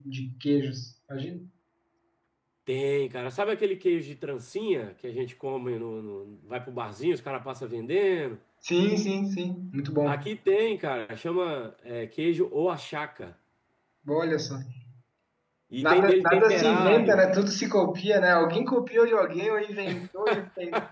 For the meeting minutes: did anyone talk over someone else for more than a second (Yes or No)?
Yes